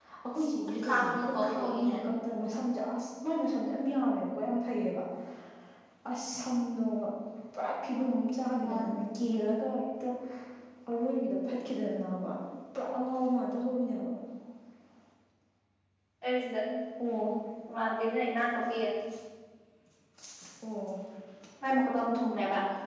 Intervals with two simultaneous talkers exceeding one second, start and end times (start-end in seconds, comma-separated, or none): 0.6-2.0